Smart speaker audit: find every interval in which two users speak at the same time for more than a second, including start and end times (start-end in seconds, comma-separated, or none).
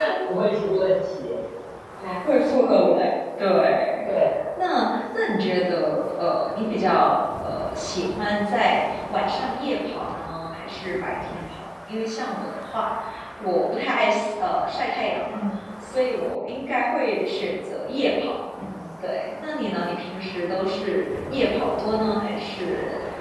none